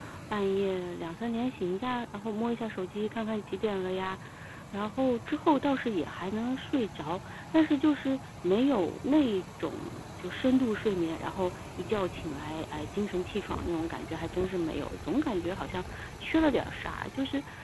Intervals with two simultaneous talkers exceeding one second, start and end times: none

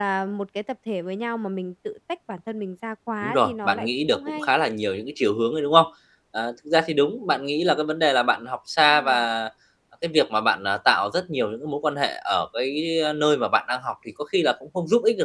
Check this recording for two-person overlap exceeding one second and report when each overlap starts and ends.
3.2-4.5

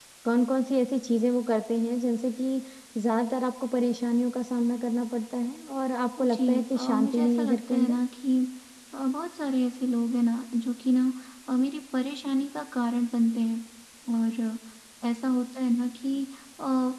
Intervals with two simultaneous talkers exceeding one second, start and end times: 6.2-8.0

